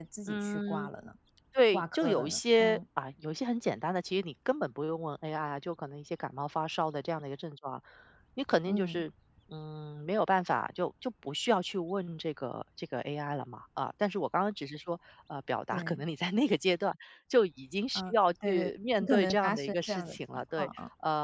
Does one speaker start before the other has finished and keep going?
Yes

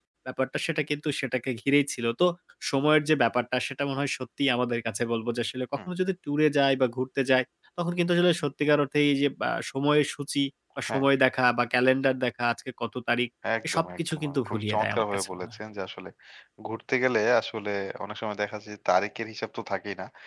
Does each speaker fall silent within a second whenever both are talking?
No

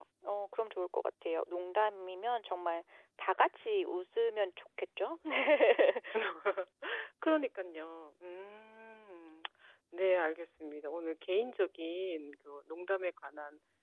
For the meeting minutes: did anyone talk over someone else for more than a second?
No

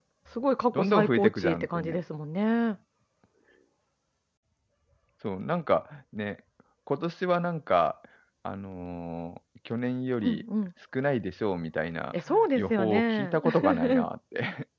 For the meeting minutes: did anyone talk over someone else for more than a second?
Yes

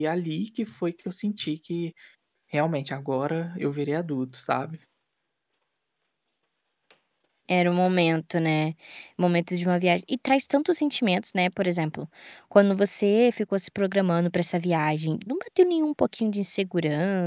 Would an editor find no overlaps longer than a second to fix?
Yes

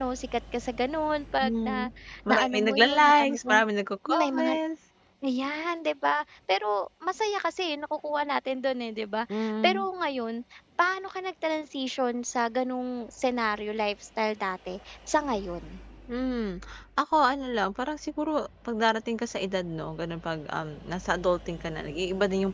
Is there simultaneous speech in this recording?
Yes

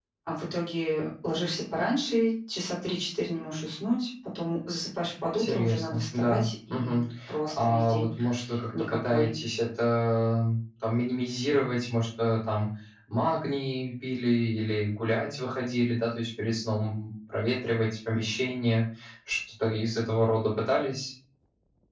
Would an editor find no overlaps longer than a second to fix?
No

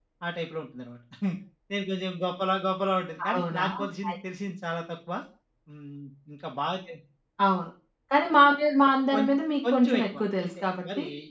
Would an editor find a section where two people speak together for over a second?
Yes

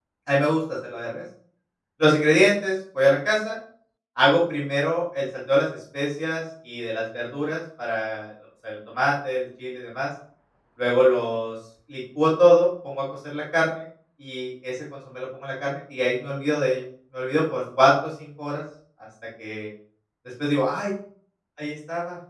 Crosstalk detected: No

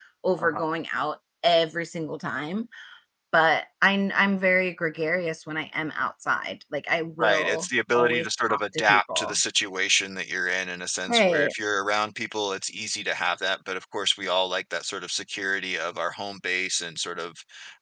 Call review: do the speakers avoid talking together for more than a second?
No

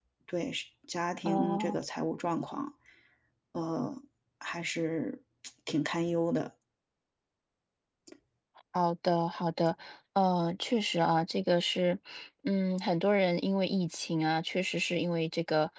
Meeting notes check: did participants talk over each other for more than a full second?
No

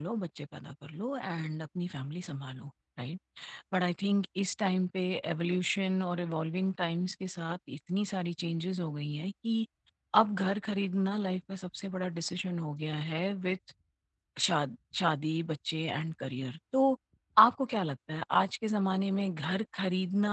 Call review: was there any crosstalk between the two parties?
No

